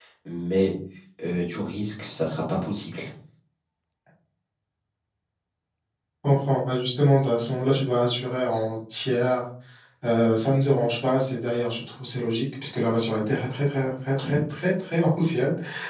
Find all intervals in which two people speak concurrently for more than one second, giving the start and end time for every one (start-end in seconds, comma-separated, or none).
none